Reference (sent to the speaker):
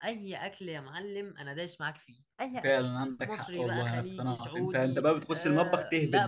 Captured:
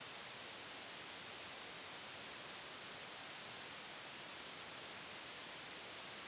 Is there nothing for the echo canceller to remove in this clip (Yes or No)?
Yes